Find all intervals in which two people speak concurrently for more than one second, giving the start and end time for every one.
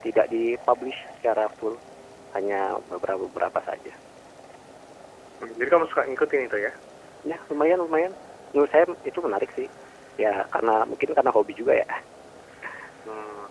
none

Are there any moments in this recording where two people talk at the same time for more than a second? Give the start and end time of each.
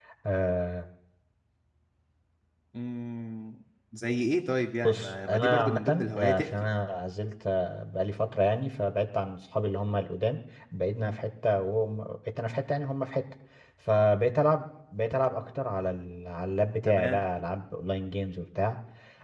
4.8-6.5

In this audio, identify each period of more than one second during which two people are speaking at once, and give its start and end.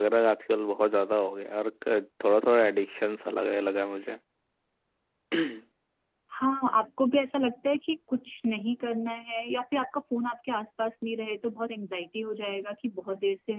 none

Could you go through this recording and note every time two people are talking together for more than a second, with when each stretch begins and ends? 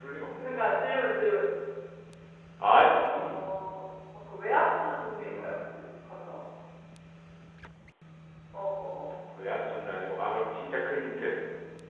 none

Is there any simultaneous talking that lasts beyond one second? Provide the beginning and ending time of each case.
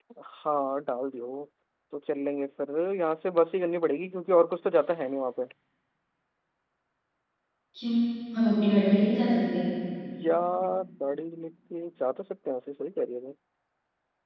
none

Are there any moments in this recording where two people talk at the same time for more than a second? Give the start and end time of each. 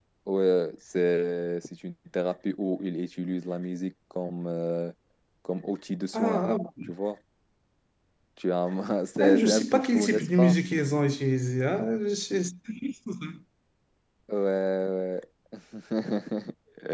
9.2-10.6

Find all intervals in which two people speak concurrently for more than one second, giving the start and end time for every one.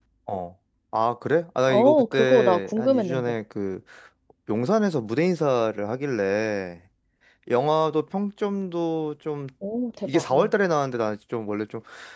1.7-3.3

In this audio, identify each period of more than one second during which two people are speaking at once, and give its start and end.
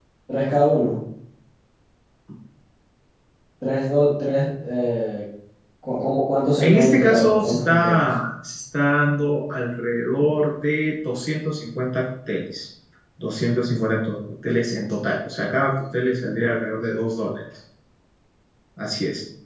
6.6-8.1

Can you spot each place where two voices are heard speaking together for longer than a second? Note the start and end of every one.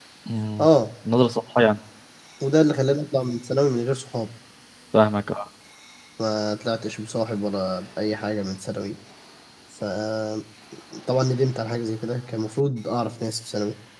none

